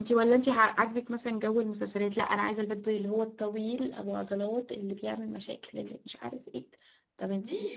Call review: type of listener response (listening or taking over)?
taking over